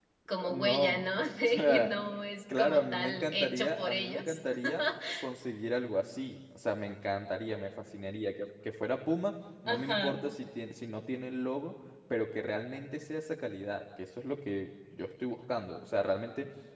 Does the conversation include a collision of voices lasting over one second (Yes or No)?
Yes